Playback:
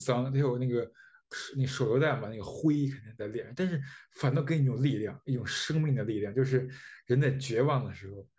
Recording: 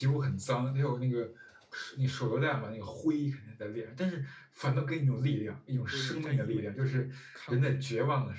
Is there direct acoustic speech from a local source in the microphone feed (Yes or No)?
Yes